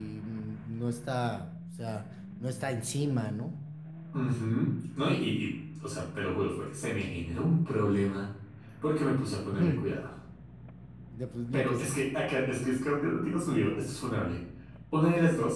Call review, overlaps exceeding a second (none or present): none